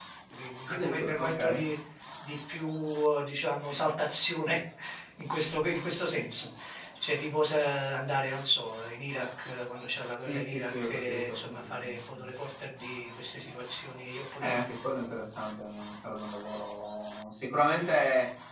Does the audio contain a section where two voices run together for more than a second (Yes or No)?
Yes